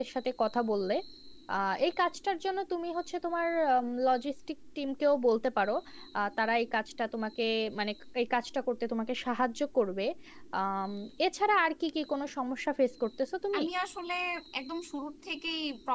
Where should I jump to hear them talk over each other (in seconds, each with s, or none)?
none